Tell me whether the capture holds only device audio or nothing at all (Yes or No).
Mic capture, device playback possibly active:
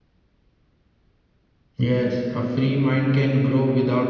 No